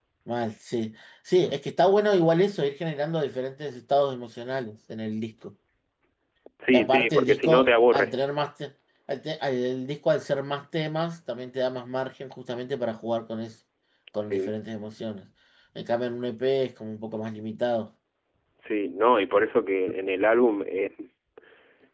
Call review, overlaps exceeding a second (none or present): present